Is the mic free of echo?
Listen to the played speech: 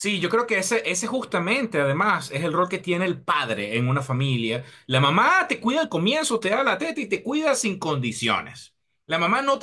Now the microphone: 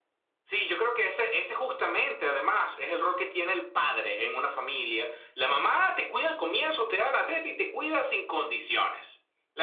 No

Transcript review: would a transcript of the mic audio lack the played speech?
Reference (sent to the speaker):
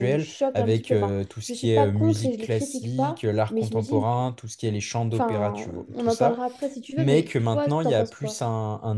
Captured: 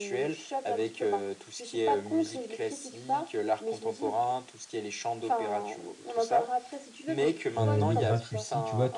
No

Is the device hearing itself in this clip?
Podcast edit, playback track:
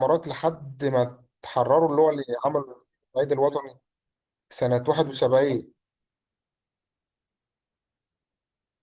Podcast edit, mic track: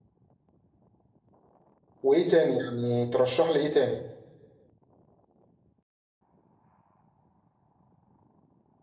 No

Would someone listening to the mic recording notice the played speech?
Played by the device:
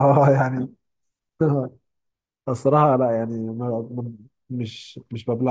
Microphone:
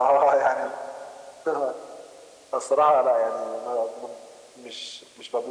Yes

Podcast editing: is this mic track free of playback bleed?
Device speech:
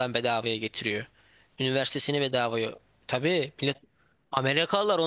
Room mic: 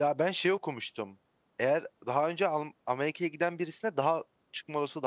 Yes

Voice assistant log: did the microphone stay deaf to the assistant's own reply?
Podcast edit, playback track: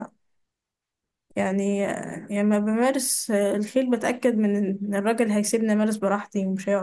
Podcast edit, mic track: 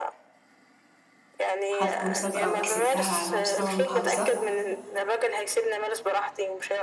No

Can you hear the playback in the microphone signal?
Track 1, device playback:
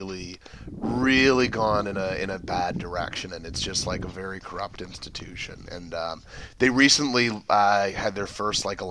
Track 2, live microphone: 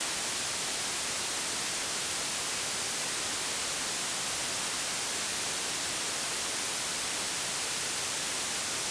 No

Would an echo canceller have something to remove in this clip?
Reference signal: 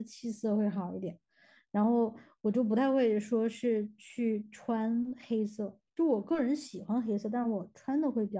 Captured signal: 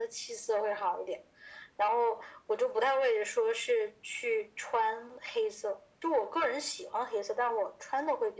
Yes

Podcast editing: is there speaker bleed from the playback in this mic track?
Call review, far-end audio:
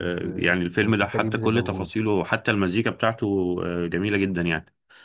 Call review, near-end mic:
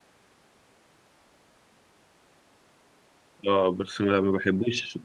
No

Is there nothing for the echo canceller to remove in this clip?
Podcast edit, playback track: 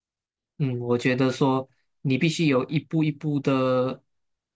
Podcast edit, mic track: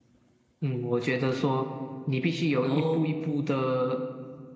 No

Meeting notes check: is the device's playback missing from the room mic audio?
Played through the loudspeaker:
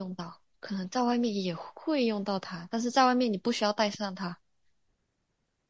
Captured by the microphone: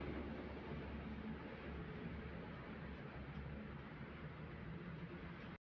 Yes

